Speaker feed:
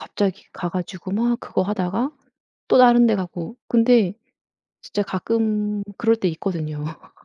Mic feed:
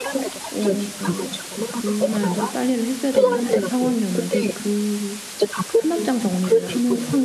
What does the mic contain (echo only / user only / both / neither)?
both